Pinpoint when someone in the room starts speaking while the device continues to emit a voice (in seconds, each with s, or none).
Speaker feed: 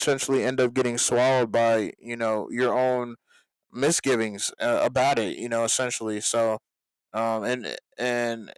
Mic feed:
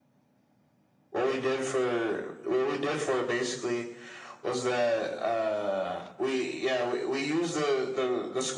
1.1 s